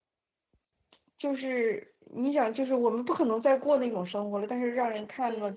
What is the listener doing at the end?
listening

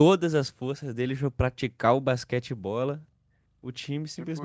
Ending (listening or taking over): listening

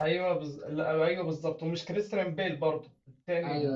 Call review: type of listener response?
listening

